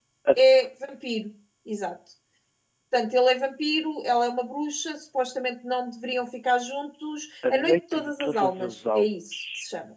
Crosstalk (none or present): present